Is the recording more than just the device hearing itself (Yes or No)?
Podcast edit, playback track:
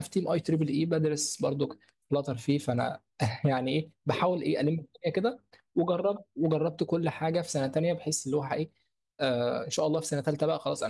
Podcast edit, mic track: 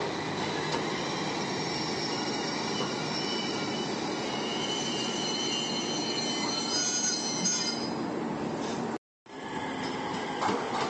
No